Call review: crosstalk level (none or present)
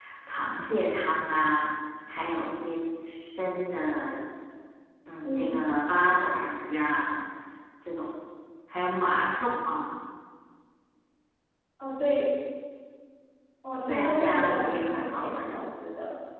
present